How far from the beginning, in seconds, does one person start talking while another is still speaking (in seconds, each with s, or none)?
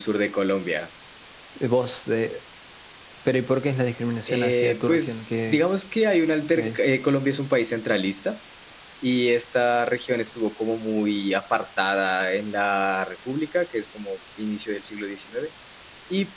4.3 s